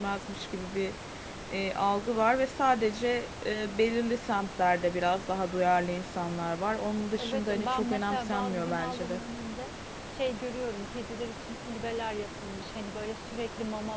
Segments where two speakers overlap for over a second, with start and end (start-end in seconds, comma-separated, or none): 7.2-9.2